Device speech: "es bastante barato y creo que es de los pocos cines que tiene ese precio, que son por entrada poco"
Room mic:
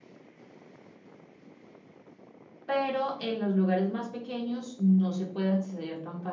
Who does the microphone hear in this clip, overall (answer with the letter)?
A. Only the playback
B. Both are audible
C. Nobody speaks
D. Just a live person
D